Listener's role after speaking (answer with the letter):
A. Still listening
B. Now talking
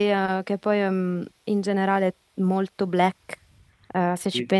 A